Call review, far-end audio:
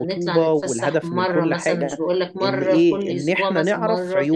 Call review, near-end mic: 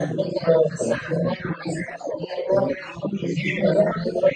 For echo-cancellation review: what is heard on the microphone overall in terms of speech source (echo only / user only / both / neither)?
echo only